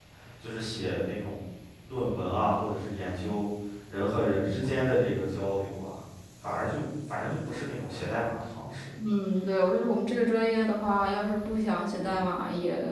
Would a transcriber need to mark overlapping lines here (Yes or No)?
No